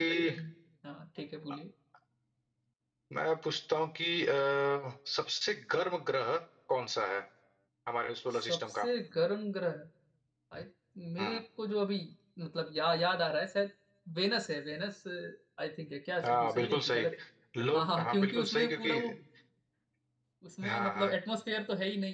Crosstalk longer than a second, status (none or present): present